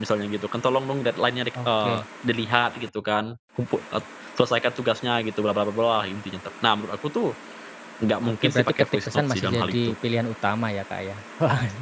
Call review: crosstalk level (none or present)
present